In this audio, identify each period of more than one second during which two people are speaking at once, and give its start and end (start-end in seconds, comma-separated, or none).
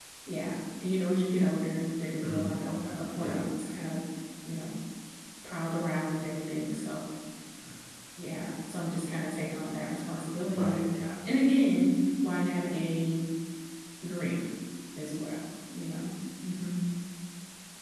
2.2-3.5